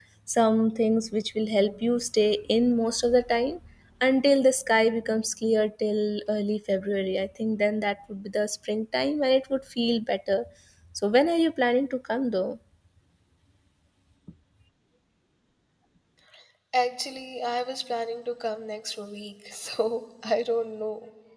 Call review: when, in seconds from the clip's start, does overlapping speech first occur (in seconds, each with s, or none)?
none